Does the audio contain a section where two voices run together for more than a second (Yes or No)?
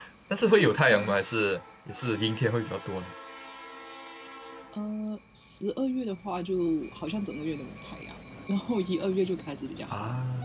No